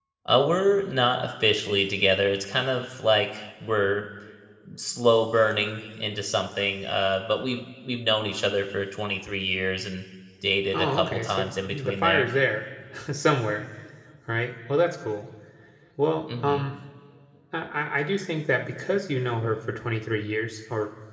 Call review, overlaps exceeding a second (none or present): present